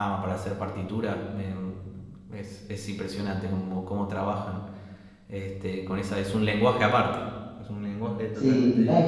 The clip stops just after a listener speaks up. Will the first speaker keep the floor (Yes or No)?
No